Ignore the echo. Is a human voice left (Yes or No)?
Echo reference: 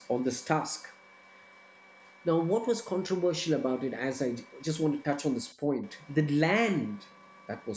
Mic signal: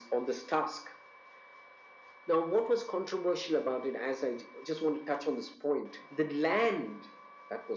No